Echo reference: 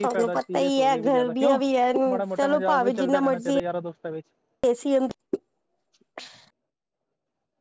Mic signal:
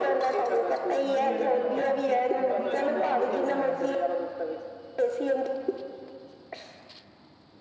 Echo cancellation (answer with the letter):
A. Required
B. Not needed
A